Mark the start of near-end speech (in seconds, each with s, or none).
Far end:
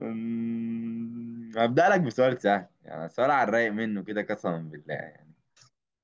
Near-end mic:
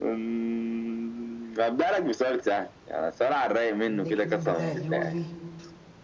3.9 s